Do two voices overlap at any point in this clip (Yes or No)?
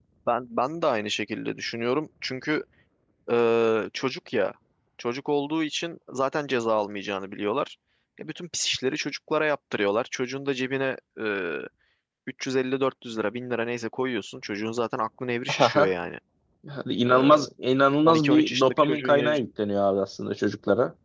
Yes